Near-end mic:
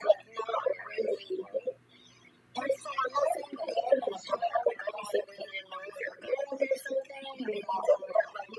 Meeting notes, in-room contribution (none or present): none